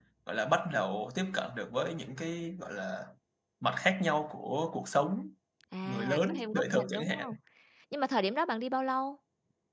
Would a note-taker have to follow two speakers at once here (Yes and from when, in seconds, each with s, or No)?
Yes, from 5.8 s